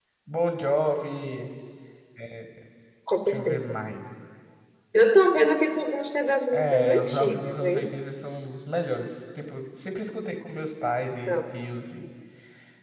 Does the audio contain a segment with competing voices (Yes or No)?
Yes